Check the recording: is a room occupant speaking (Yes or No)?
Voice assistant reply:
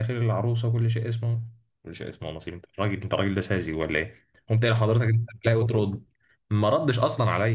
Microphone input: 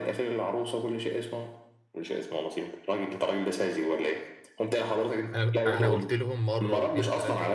Yes